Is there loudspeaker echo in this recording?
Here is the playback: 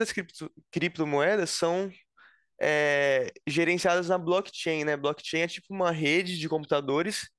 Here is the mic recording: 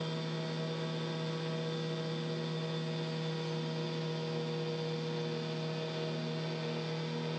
No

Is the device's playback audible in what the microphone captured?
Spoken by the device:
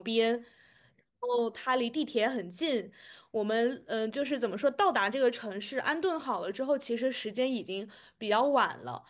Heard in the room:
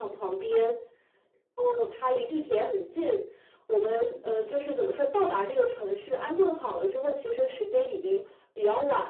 Yes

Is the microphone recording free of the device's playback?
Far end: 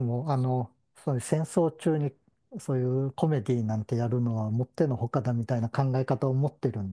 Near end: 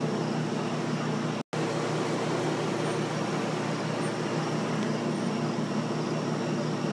Yes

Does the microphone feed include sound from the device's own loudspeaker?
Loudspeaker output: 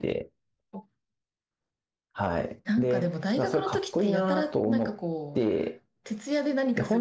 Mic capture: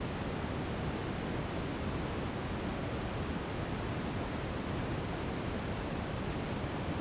No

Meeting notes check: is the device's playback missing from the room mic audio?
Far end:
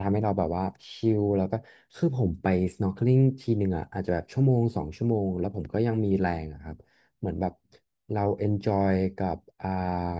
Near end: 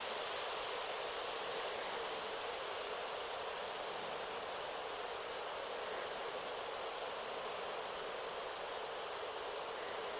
Yes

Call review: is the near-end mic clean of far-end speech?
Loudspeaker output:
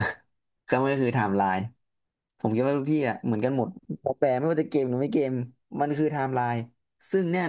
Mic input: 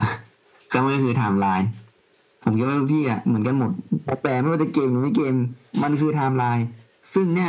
No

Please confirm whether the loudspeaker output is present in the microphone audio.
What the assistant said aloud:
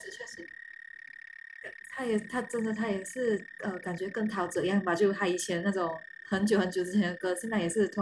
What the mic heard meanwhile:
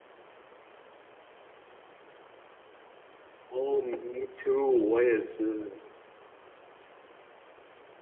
No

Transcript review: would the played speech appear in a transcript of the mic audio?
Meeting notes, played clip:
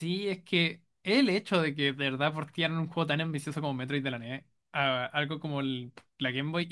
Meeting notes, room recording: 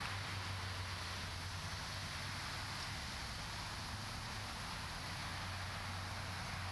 No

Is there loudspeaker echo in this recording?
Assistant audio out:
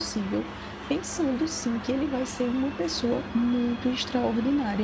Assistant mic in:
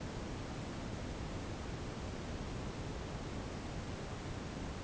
No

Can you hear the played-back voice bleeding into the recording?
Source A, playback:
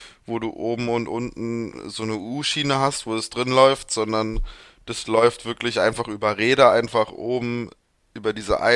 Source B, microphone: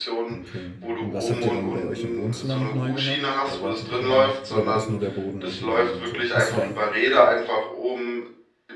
Yes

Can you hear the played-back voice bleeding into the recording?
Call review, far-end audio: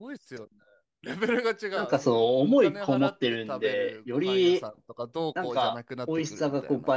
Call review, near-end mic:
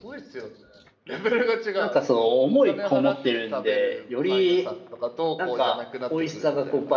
Yes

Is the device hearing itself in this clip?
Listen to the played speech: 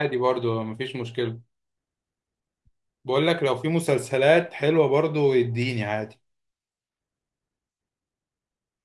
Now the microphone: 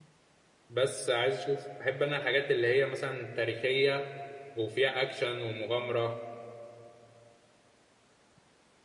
No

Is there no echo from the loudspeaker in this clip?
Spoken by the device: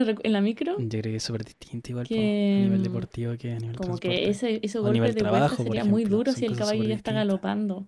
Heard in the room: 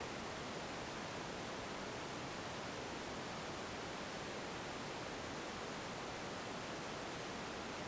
Yes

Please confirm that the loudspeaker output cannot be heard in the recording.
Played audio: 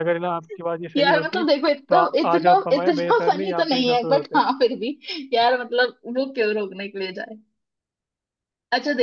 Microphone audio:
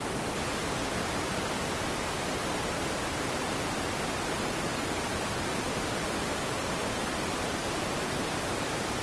Yes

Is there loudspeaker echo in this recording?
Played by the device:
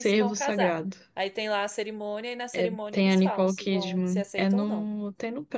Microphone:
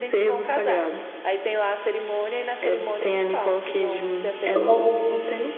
Yes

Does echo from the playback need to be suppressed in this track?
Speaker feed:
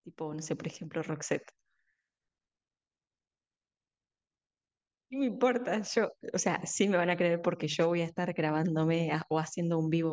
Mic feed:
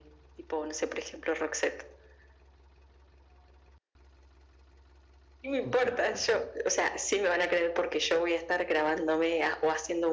Yes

